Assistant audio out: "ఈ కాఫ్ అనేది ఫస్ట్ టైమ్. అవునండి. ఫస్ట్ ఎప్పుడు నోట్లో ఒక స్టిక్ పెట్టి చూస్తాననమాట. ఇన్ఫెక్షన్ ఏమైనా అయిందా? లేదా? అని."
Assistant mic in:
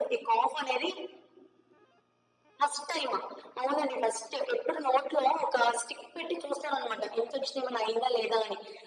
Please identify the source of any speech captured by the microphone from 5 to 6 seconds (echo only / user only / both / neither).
echo only